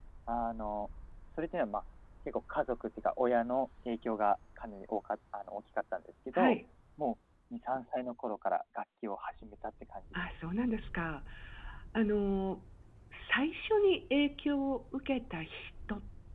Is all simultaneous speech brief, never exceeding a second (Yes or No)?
Yes